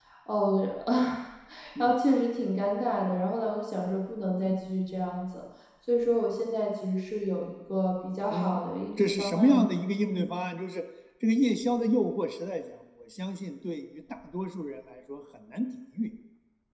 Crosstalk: present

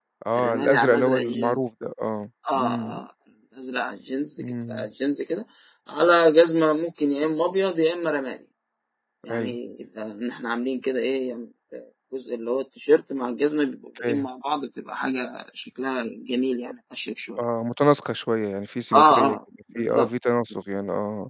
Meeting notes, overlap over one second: present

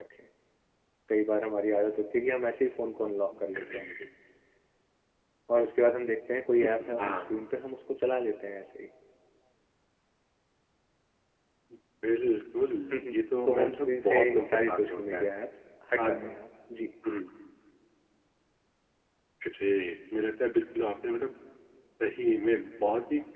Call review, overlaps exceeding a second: present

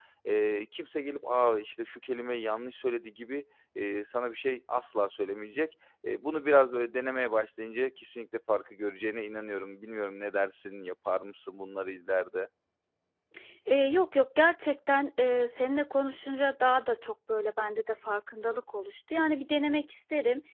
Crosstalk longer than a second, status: none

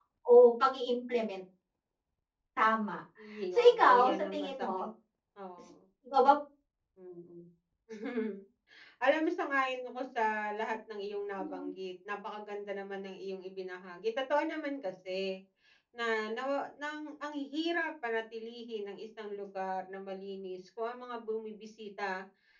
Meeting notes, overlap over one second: present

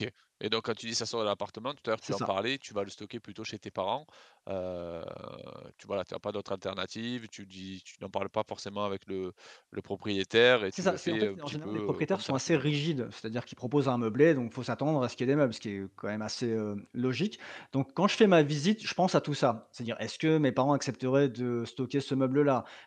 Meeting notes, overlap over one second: present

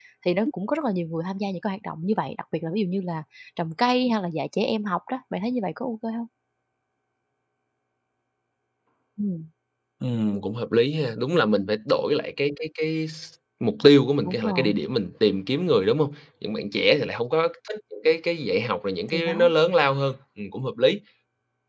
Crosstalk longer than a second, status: none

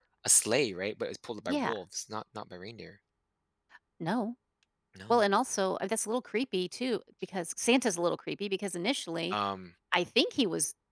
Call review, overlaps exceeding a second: none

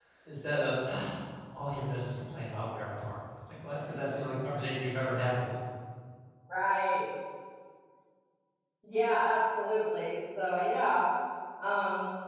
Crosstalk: none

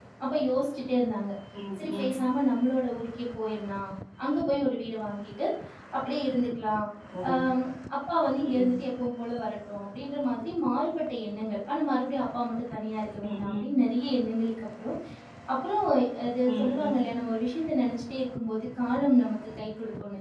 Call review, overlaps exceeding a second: none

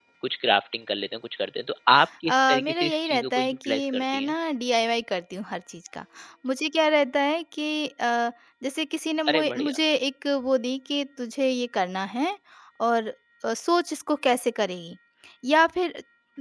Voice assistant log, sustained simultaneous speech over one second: present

